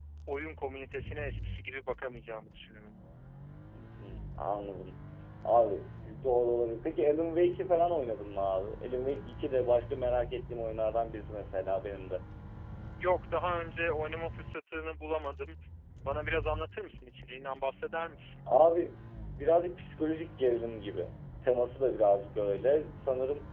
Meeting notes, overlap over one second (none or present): none